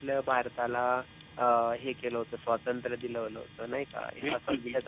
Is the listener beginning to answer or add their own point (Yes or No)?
Yes